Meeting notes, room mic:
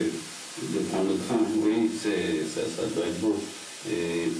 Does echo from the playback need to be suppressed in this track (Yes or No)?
Yes